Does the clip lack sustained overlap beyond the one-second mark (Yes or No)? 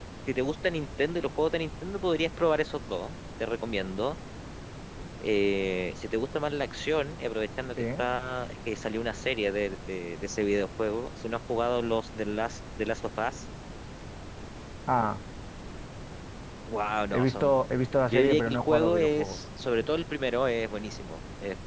No